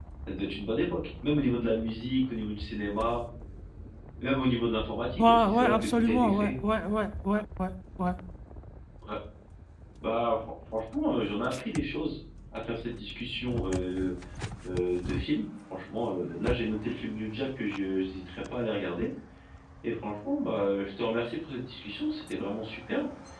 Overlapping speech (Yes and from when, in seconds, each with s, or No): Yes, from 5.2 s